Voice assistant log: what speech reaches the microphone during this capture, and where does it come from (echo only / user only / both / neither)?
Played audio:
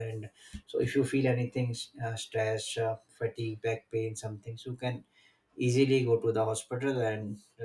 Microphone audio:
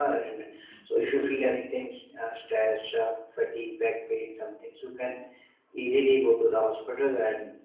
echo only